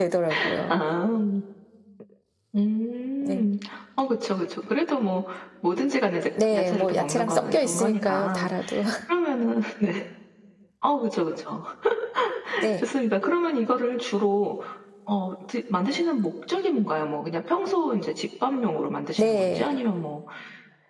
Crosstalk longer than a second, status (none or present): present